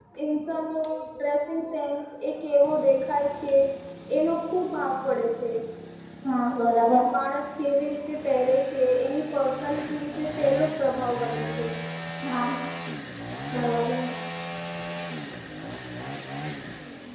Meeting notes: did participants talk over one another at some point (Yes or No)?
No